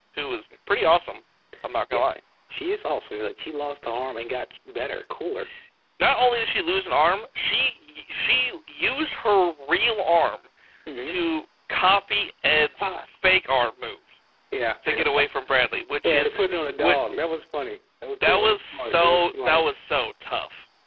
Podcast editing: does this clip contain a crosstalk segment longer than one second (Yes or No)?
Yes